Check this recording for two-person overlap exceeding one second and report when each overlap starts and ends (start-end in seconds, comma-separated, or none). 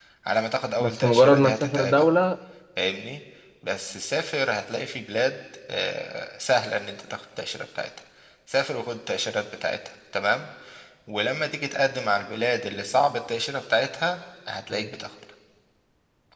0.8-2.0